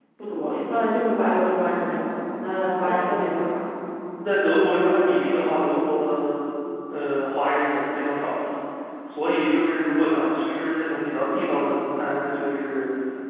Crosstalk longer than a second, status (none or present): none